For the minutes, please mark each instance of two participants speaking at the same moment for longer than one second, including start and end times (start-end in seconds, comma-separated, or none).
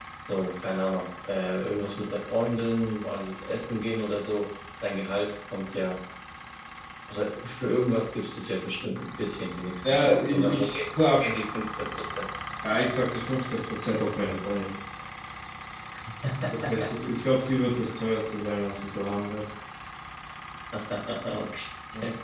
9.9-11.3